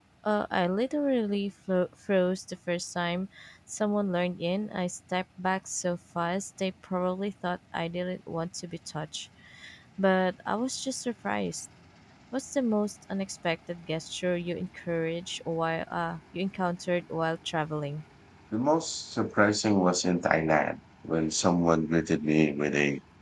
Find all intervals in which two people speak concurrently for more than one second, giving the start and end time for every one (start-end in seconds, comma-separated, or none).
none